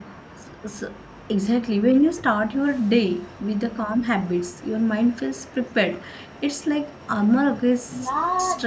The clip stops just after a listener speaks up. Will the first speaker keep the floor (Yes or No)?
No